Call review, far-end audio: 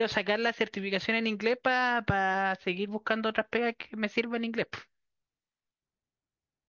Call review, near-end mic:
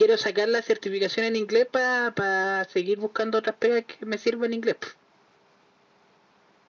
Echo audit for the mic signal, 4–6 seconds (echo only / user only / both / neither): echo only